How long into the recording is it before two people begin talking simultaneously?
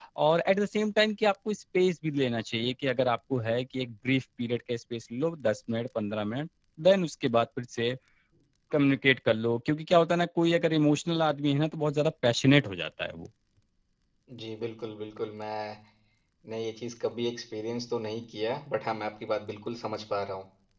none

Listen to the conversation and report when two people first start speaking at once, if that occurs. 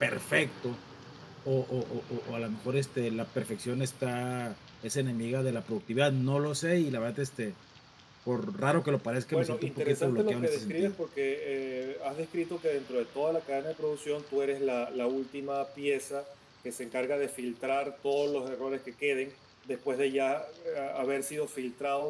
9 s

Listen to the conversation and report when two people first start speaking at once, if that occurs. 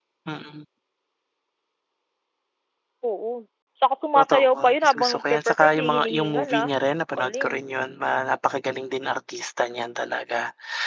4 s

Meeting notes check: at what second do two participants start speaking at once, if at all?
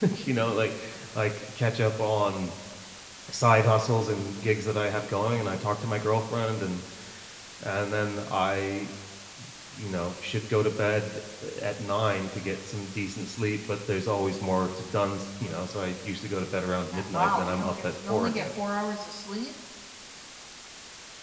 17 s

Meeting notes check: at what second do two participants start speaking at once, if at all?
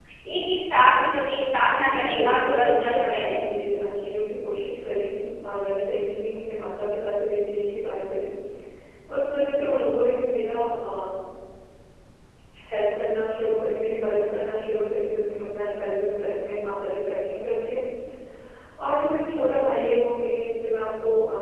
2 s

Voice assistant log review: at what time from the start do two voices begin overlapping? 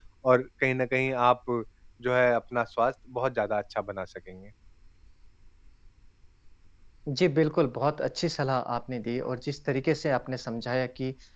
none

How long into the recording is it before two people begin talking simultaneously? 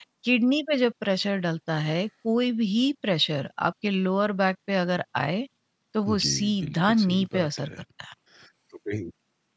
6 s

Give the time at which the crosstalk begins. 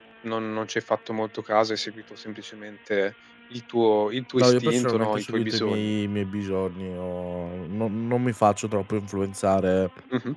4 s

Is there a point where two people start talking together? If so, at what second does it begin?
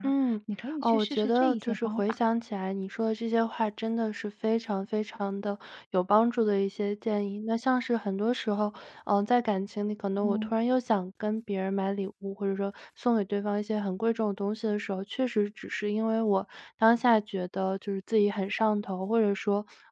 1 s

